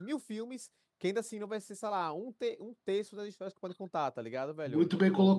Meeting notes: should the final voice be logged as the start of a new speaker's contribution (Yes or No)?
Yes